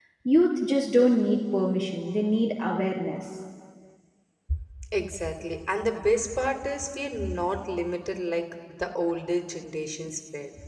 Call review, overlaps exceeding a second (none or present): none